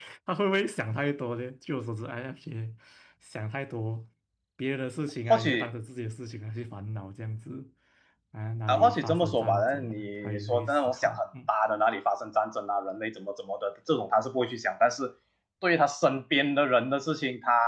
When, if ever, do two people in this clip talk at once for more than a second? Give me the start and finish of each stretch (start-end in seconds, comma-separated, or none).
8.7-11.2